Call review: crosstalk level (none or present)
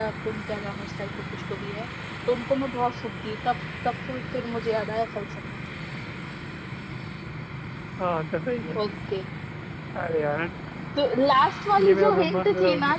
present